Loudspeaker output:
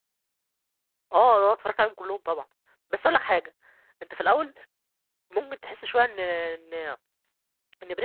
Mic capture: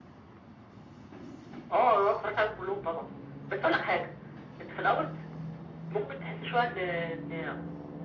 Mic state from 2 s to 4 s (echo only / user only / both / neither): echo only